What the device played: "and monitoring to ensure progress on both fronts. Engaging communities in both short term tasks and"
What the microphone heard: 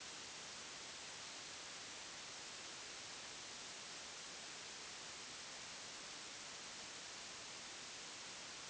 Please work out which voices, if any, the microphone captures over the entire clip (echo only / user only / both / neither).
neither